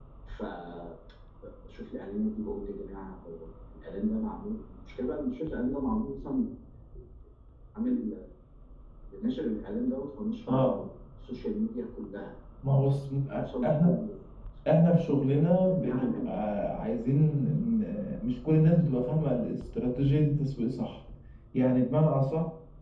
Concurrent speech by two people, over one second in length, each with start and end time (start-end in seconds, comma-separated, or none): 15.1-16.3